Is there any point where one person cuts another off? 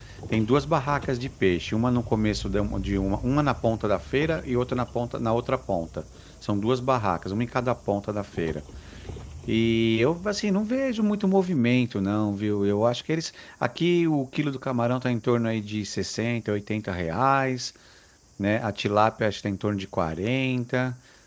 No

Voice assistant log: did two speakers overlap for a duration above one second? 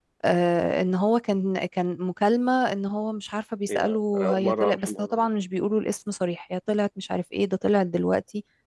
Yes, from 3.7 s

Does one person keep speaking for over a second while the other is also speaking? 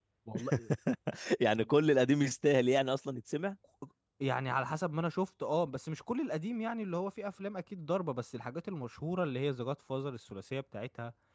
No

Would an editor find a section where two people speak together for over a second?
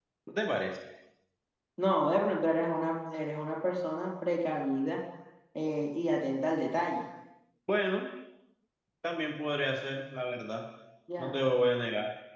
No

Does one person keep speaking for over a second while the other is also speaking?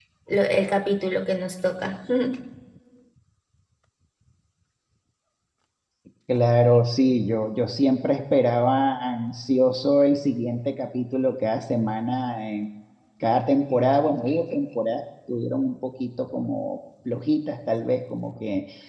No

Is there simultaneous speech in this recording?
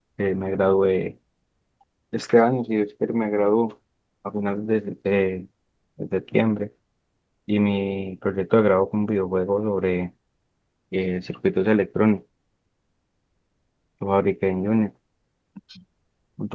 No

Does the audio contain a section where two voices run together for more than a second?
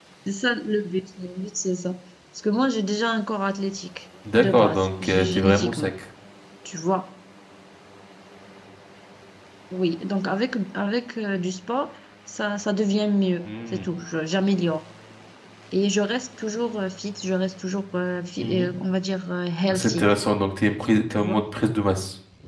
Yes, from 4.4 s

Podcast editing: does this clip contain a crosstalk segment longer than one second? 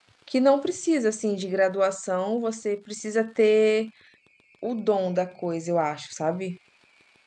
No

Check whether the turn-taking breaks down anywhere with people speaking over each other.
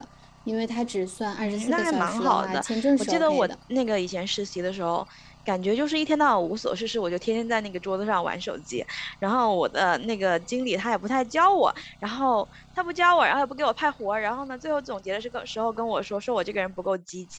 Yes, from 1.4 s

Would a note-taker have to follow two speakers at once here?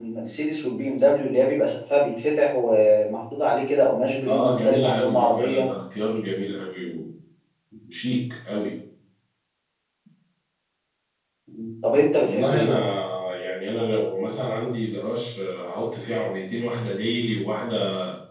Yes, from 4.3 s

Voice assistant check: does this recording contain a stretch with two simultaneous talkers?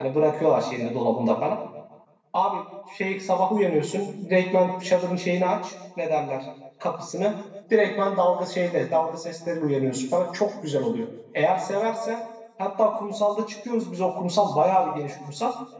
No

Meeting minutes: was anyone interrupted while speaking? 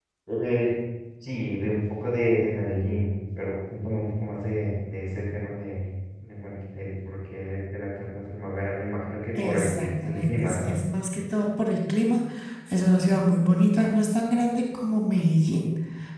Yes, from 9.3 s

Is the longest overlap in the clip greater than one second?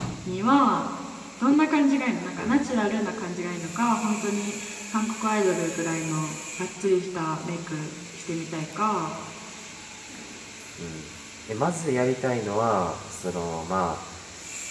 No

